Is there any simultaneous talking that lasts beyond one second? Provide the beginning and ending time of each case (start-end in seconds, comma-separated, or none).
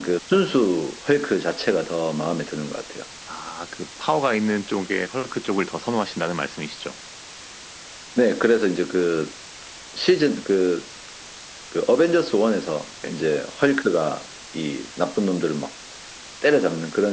none